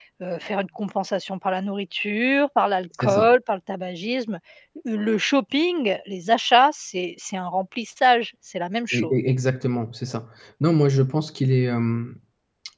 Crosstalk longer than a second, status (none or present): none